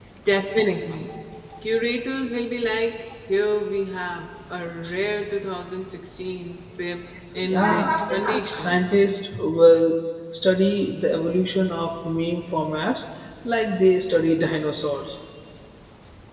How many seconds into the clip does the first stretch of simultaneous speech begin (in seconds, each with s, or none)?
7.3 s